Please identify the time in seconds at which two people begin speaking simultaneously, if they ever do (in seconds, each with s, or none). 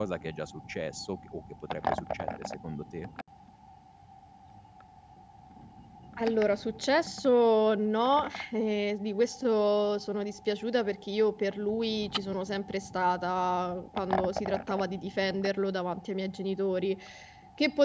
none